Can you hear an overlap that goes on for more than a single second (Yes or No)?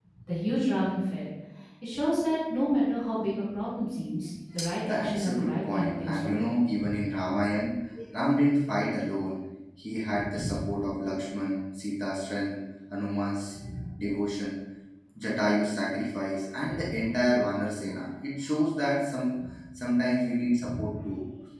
Yes